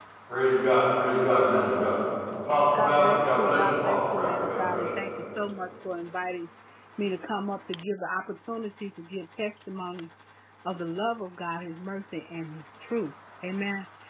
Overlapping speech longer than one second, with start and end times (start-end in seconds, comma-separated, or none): 2.8-4.9